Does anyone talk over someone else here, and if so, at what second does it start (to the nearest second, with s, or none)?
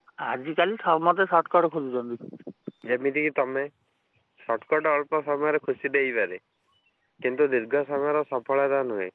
none